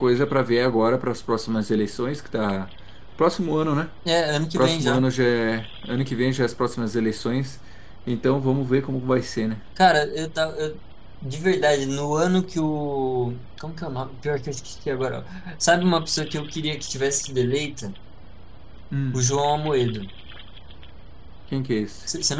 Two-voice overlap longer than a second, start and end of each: none

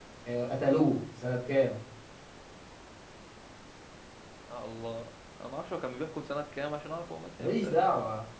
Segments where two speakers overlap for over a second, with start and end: none

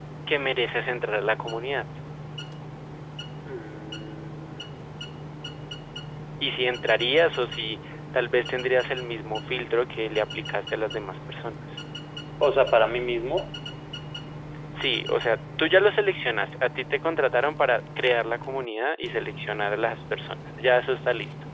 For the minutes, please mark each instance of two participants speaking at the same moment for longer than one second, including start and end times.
none

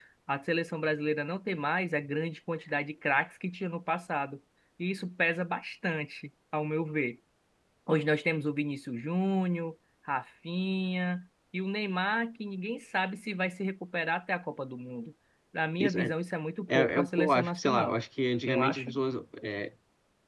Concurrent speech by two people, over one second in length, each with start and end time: 16.7-18.0

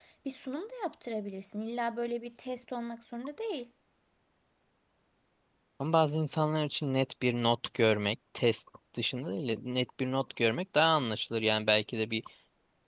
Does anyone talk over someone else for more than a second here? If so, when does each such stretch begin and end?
none

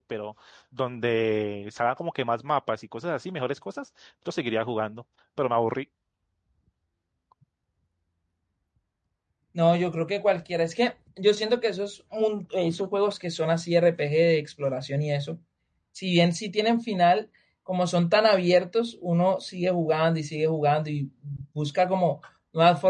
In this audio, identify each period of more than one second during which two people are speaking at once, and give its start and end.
none

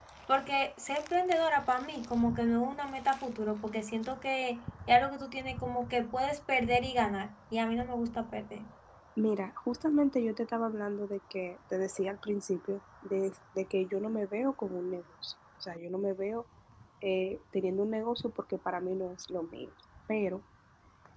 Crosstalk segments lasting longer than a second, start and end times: none

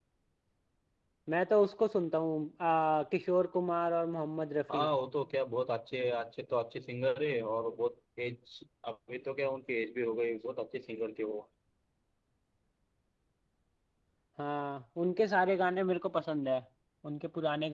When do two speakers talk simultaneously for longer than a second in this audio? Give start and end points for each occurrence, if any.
none

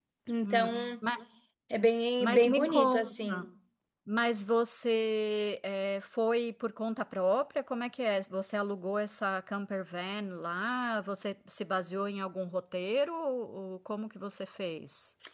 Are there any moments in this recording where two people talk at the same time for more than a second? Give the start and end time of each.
2.2-3.4

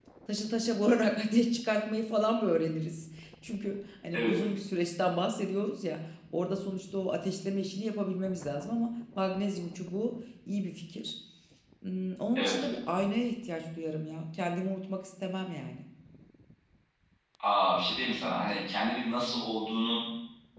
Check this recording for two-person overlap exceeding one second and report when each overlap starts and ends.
none

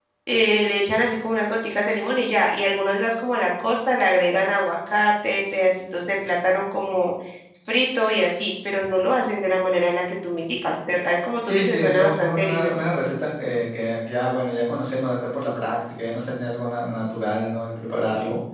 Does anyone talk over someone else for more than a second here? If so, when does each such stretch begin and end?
11.4-12.8

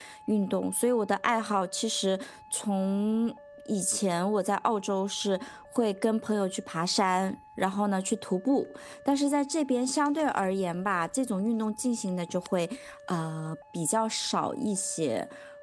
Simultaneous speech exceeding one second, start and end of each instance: none

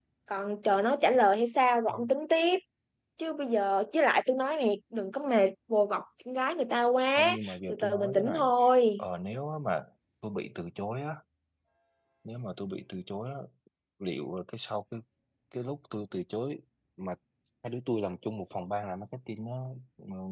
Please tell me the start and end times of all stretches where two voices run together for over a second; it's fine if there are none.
7.2-8.4

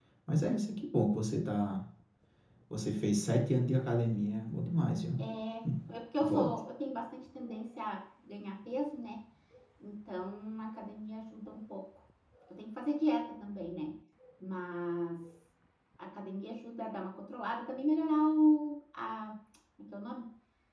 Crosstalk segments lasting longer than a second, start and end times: none

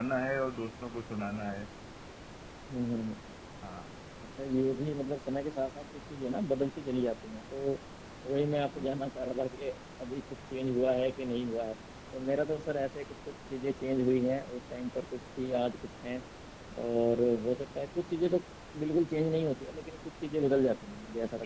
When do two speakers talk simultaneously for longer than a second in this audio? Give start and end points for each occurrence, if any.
none

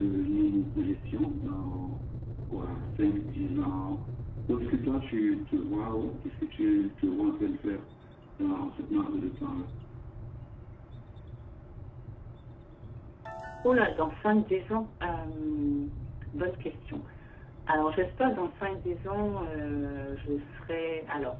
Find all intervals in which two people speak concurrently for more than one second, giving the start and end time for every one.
none

